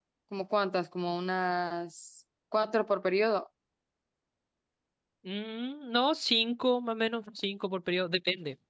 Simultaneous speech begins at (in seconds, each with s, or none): none